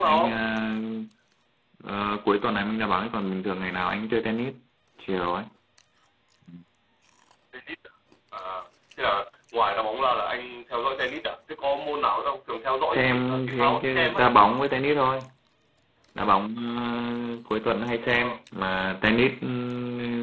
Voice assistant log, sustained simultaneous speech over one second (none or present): present